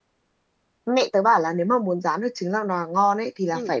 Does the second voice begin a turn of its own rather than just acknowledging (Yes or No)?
No